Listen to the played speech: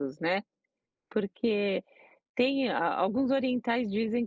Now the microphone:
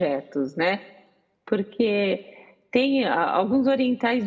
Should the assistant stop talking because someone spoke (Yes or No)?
No